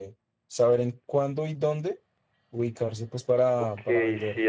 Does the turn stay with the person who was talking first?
No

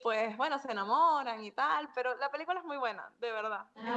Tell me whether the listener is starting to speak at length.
Yes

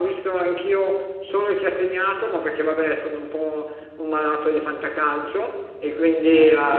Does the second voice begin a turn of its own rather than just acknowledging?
No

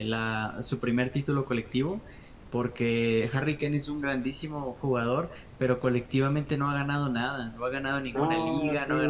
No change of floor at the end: Yes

